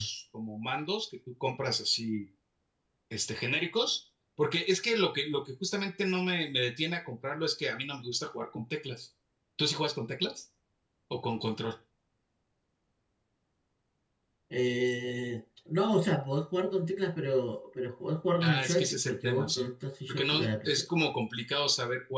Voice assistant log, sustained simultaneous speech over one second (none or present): present